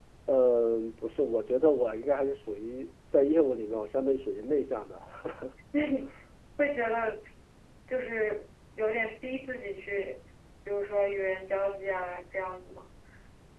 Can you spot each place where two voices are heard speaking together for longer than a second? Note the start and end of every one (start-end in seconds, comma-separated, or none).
none